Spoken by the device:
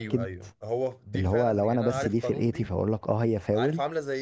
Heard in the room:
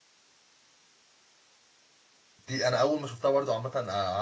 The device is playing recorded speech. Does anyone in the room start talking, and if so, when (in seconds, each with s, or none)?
2.5 s